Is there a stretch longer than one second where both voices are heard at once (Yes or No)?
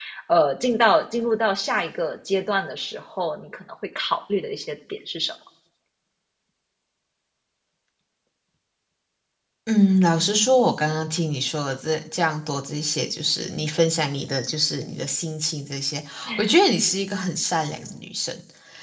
No